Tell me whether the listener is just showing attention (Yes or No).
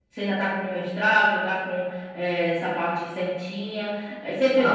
No